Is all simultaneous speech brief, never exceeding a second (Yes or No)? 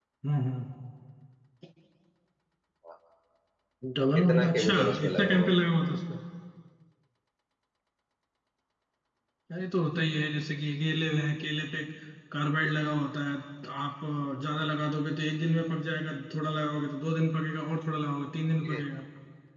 No